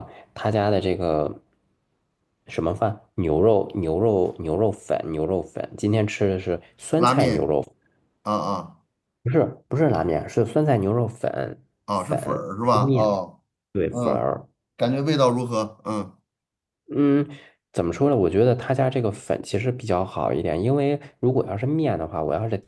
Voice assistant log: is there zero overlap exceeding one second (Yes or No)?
Yes